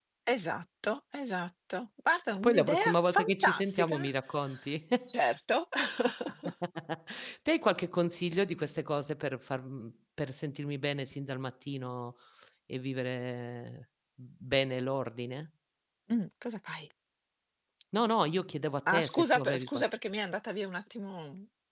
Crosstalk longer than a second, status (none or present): present